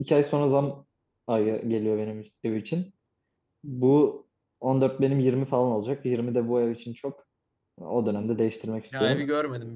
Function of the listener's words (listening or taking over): taking over